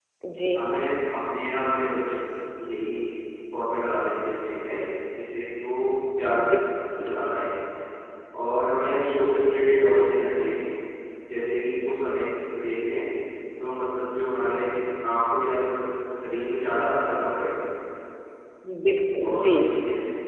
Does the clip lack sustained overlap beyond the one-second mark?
Yes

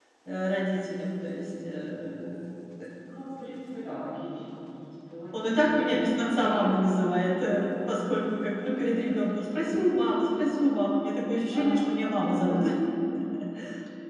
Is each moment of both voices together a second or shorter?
No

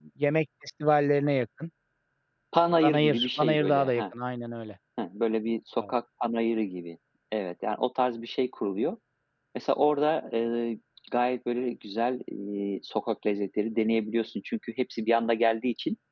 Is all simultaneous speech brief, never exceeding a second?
No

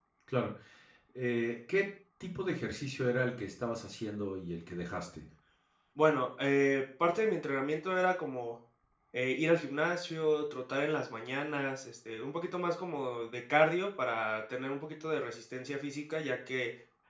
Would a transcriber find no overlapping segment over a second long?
Yes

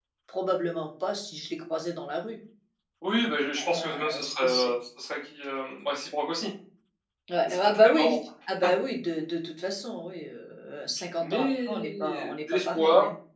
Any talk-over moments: Yes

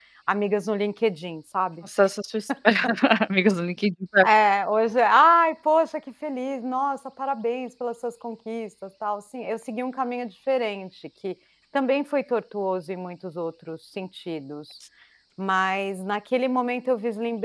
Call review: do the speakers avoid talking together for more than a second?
Yes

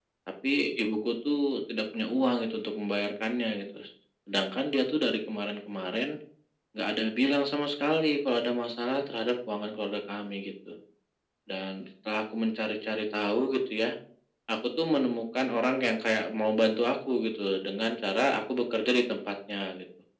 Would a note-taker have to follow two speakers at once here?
No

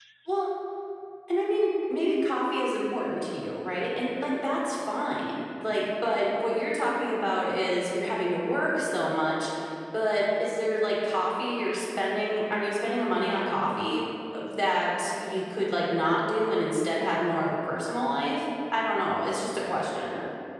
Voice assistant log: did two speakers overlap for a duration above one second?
No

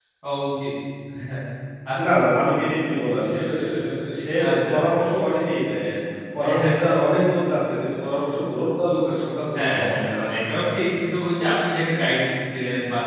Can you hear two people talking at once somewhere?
Yes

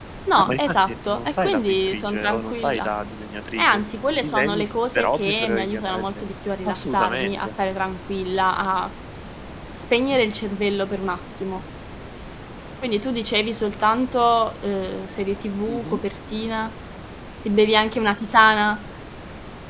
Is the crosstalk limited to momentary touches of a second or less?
No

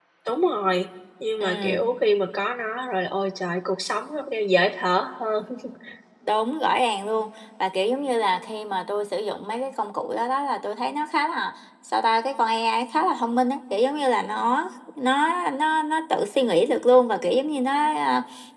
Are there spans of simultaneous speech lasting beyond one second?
No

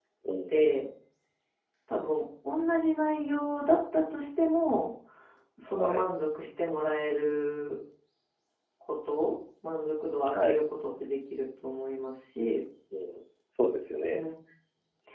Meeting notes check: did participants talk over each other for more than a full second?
No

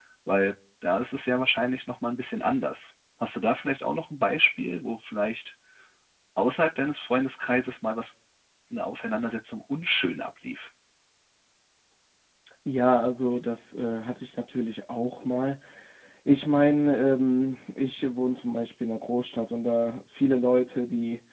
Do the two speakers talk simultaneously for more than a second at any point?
No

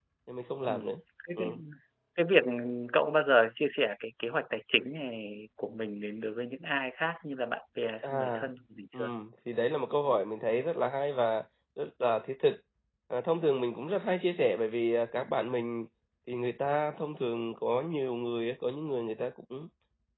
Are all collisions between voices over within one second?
Yes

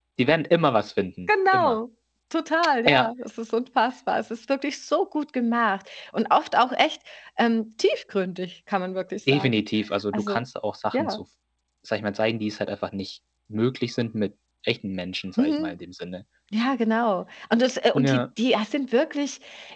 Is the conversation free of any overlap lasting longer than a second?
Yes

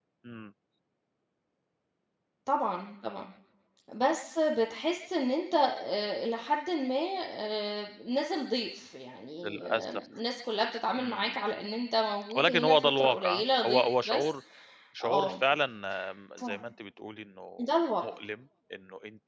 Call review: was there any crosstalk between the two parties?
Yes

